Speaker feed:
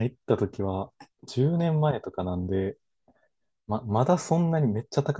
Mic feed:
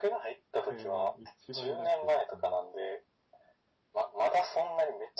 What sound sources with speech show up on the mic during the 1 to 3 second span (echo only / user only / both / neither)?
both